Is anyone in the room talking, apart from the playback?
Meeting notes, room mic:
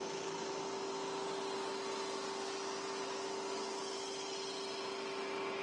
No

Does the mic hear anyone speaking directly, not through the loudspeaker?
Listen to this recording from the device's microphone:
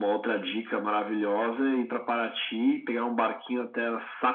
No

